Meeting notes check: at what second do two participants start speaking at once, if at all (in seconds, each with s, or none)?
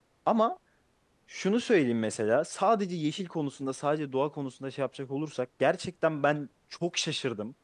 none